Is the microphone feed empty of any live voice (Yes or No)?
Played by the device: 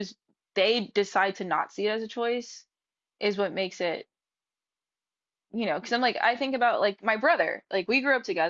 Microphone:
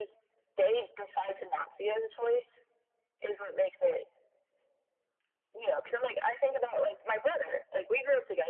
Yes